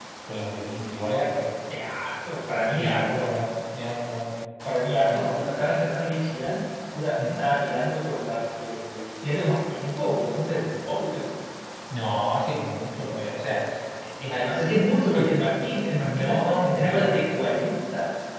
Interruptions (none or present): present